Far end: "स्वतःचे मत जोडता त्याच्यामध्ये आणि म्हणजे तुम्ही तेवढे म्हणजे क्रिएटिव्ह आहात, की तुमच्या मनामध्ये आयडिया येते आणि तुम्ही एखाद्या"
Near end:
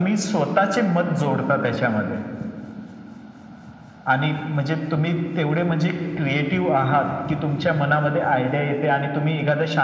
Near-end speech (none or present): none